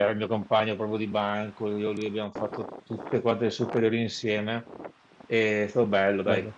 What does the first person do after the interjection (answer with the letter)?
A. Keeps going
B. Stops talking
A